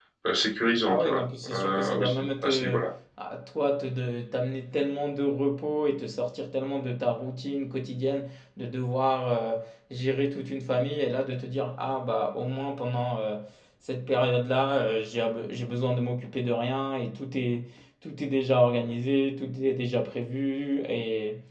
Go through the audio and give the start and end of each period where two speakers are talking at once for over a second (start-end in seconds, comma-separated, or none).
0.8-2.8